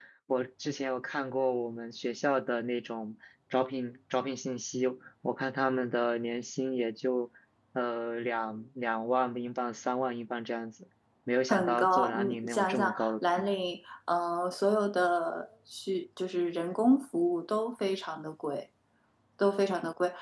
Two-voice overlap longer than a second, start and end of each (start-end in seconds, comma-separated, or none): 11.5-13.5